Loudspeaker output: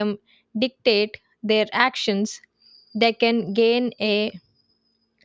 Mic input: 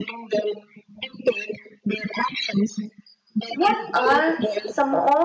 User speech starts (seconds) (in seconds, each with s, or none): 3.5 s